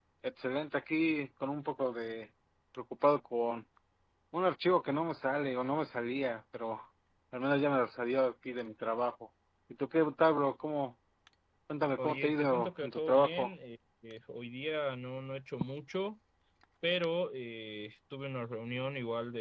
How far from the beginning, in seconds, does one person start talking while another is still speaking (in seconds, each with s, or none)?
12.0 s